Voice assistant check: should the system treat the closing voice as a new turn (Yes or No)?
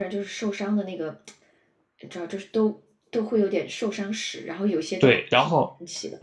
Yes